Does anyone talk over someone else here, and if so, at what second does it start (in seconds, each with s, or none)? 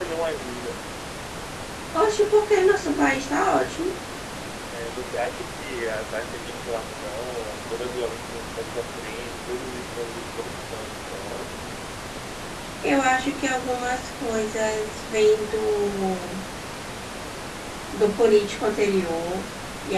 none